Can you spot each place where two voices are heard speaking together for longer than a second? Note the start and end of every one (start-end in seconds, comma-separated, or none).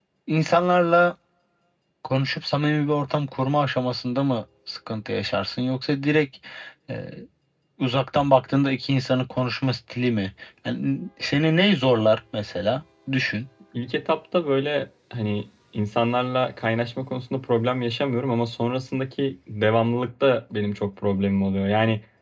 none